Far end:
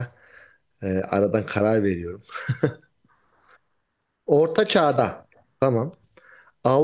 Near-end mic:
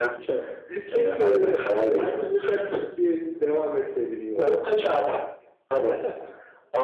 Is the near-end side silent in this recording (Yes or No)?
No